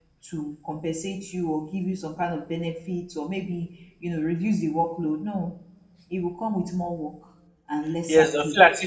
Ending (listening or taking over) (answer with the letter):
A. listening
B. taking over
B